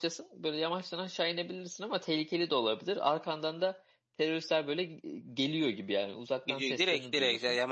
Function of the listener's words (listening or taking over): taking over